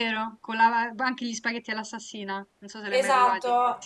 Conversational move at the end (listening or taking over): taking over